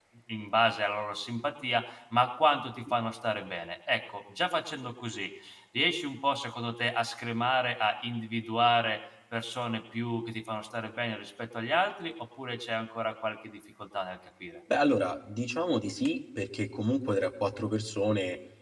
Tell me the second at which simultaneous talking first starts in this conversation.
none

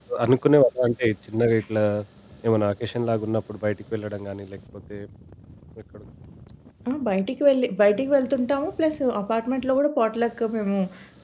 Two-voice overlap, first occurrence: none

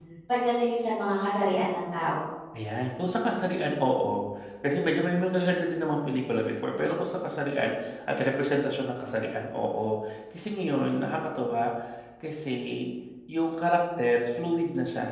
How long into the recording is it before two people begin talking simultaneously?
none

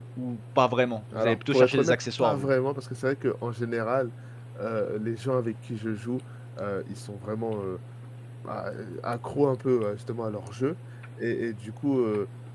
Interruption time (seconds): 1 s

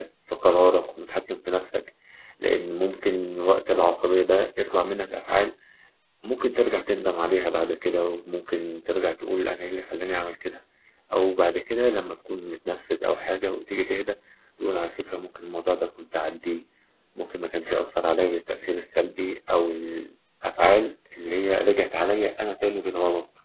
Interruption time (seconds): none

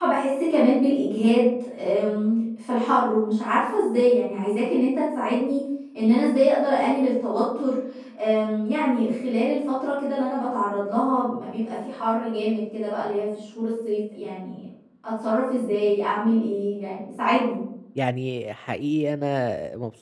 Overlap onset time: none

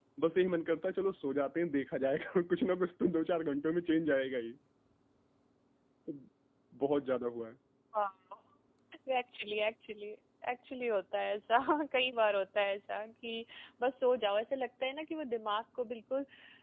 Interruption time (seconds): none

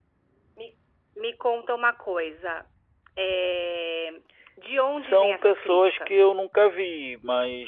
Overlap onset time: 5 s

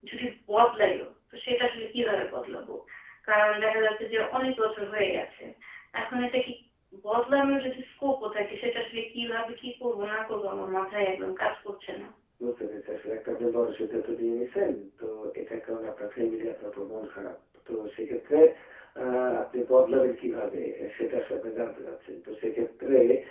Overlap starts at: none

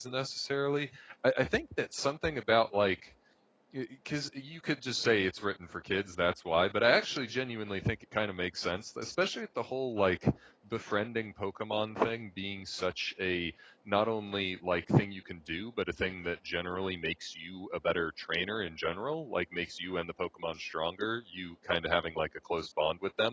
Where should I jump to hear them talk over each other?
none

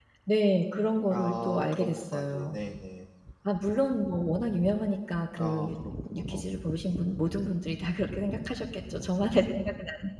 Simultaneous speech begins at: 1 s

